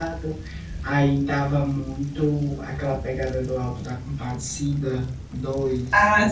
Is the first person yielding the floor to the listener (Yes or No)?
Yes